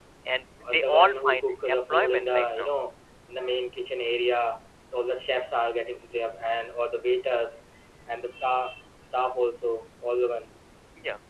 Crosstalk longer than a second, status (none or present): present